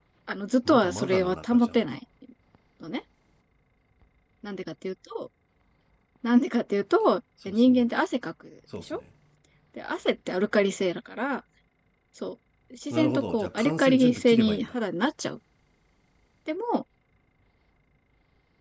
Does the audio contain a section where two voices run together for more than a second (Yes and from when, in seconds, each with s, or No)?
Yes, from 0.6 s